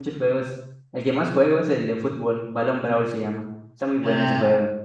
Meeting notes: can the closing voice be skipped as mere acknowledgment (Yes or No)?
No